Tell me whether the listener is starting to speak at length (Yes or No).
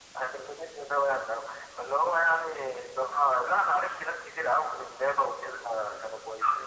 Yes